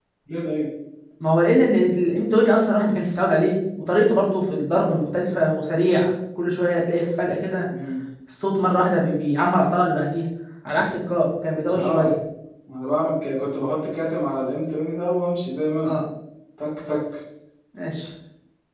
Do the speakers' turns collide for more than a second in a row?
No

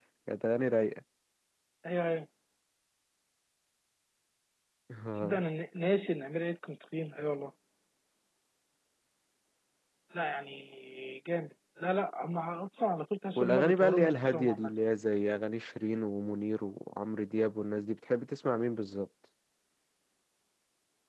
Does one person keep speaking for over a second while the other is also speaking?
Yes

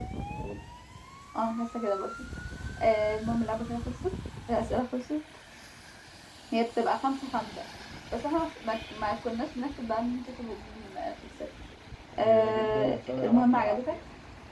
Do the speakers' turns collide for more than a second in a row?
Yes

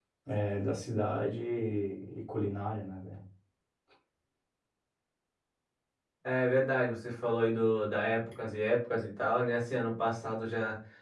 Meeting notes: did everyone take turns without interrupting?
Yes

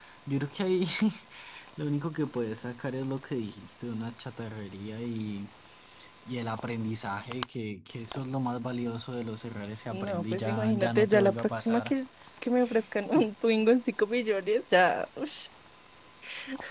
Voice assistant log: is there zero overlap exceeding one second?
No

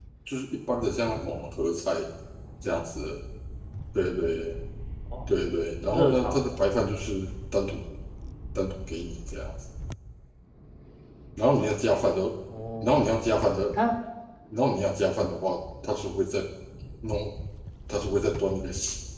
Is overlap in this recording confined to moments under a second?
Yes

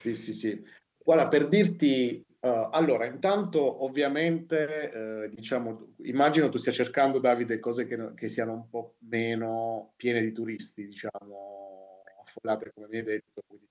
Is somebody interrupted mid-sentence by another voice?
No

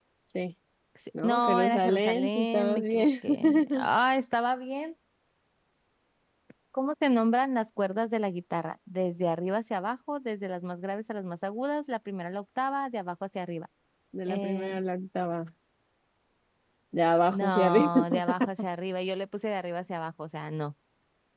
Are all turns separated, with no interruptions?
No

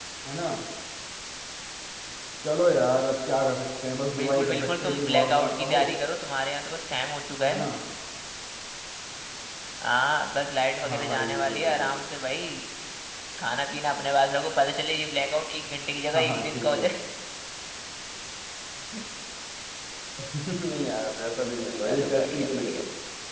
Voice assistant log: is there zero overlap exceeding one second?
No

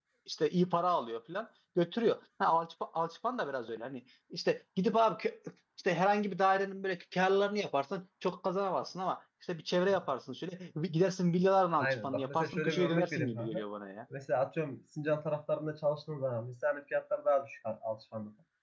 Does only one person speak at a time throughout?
No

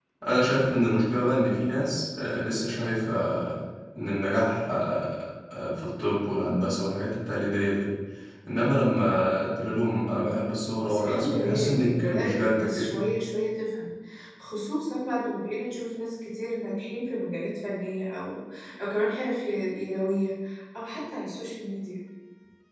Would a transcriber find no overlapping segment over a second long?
No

